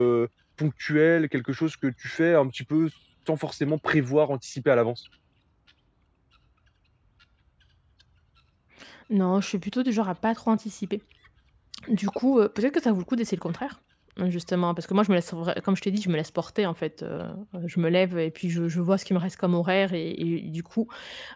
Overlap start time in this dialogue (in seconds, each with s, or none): none